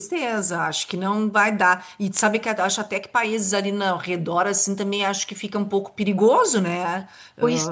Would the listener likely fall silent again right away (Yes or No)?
No